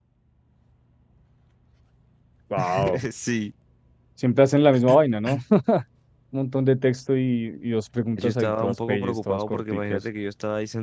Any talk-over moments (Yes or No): Yes